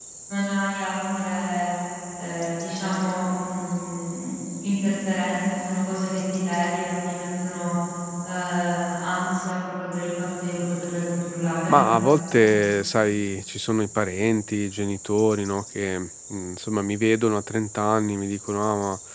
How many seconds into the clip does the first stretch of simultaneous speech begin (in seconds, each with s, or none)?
none